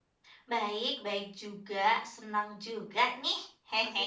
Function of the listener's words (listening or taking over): taking over